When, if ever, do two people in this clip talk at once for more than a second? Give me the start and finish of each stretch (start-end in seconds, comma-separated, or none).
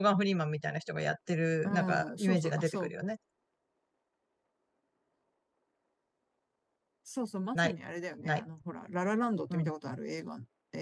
1.6-2.9